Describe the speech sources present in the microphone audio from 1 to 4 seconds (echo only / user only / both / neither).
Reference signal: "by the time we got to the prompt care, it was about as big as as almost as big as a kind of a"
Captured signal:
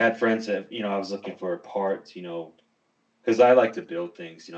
user only